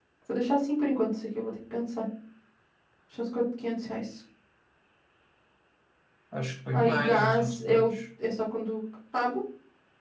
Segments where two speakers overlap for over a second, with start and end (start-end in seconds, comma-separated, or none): 6.7-8.0